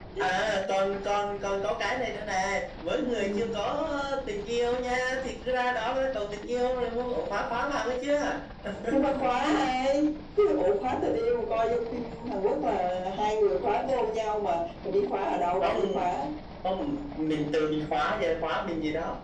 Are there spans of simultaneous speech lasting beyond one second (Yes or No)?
No